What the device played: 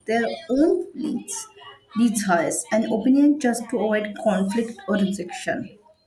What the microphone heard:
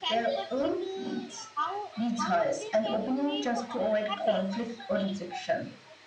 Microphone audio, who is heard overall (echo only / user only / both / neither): both